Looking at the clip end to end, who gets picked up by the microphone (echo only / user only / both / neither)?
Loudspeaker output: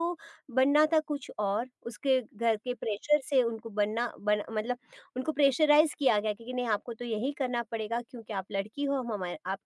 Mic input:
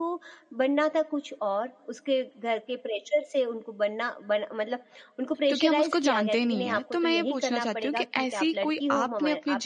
both